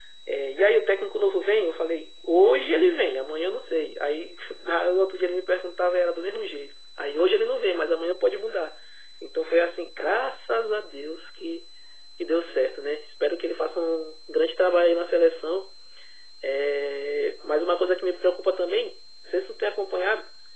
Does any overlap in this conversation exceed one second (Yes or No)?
No